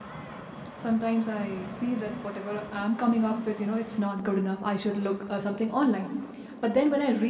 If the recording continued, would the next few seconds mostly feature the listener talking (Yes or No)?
No